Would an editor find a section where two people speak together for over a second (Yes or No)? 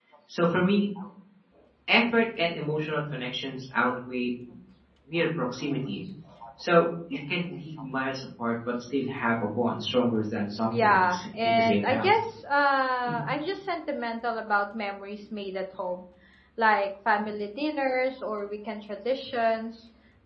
Yes